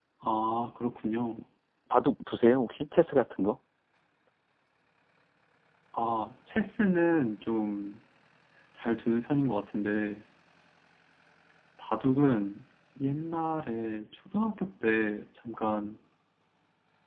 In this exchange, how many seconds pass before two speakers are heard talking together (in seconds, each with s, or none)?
none